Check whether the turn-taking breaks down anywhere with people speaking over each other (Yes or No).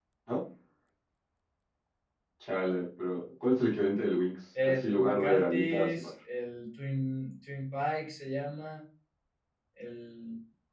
Yes